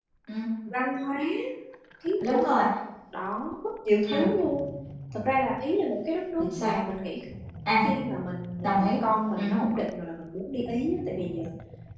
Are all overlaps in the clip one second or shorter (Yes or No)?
Yes